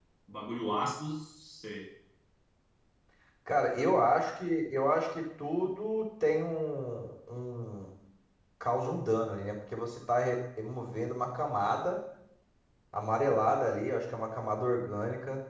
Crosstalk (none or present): none